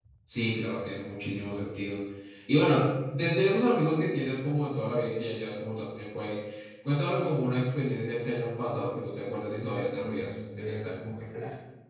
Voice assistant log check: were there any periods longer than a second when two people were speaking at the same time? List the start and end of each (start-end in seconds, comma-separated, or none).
9.6-11.2